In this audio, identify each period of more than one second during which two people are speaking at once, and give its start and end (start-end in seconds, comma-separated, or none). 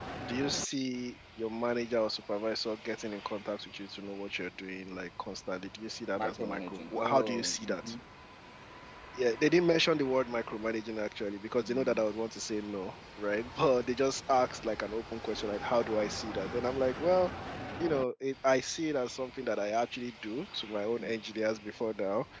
6.2-7.9